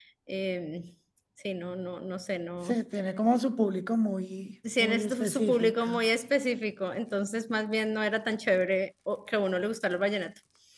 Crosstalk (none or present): present